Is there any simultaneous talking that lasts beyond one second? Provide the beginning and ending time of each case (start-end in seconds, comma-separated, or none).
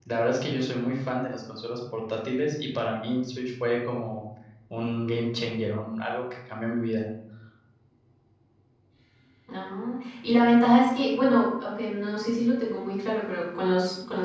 none